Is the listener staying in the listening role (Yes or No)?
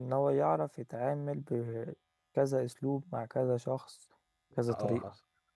No